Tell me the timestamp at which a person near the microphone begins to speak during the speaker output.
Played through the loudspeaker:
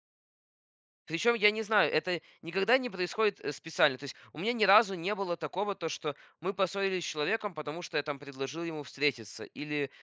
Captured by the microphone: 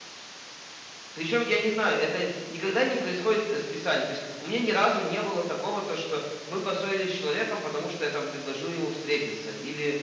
none

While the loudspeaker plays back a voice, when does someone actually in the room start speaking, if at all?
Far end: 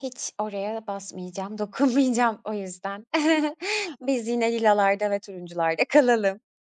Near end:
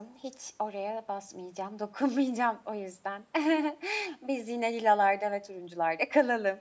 none

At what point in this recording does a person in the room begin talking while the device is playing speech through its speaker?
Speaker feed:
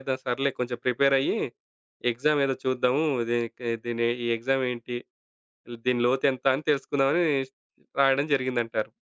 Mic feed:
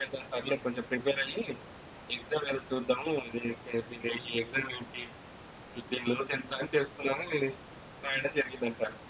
none

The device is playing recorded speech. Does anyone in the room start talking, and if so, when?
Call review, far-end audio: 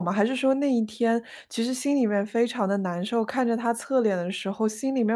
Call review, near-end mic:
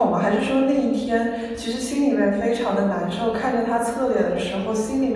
none

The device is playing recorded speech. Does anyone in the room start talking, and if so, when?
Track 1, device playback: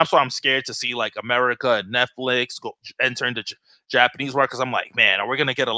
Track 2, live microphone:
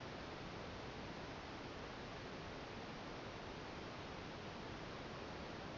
none

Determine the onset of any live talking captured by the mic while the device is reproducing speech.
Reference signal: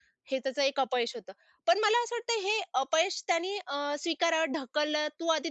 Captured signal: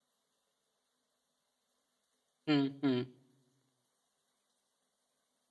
2.5 s

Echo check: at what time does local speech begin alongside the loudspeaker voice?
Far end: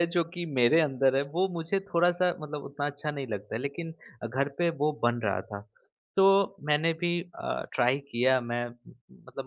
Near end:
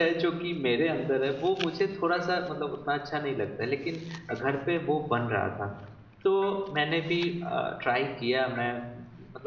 none

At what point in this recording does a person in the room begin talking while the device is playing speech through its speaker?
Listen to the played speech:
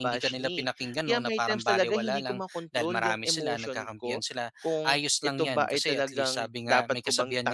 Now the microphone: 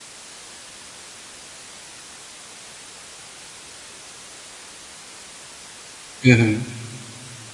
6.2 s

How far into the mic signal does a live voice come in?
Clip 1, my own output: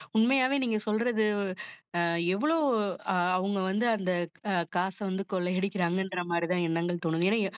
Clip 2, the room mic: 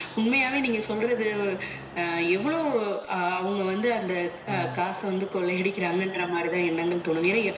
4.5 s

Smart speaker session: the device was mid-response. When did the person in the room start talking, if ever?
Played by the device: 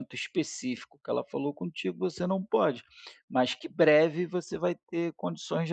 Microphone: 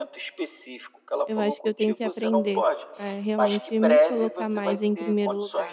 1.3 s

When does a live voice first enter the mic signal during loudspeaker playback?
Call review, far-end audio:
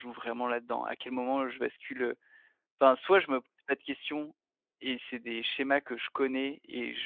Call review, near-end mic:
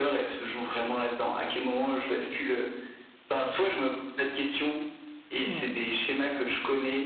5.4 s

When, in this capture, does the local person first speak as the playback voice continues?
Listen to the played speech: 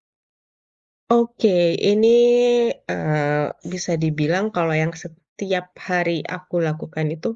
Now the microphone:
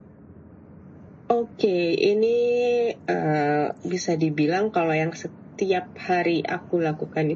none

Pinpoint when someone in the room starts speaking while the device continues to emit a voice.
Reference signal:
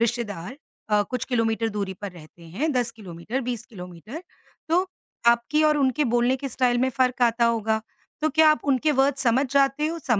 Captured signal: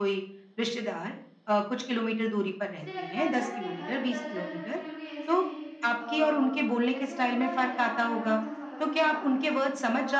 2.8 s

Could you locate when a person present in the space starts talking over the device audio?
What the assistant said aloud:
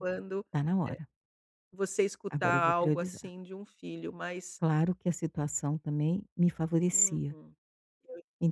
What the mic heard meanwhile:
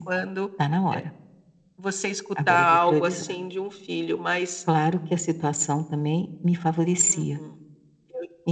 none

